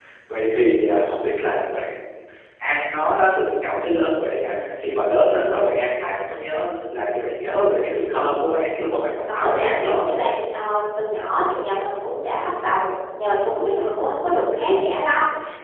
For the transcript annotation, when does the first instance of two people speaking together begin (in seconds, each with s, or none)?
8.9 s